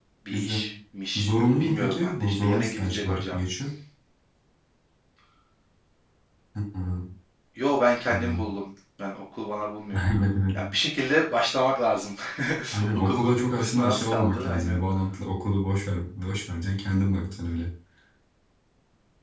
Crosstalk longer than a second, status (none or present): present